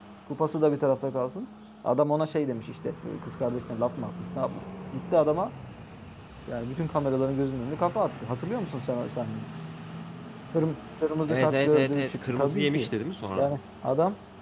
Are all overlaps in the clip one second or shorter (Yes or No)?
No